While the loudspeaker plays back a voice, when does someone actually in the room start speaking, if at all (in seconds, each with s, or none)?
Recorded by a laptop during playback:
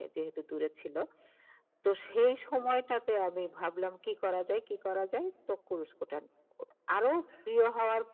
none